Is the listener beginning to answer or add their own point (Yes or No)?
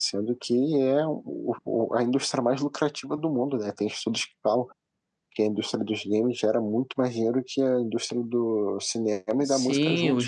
Yes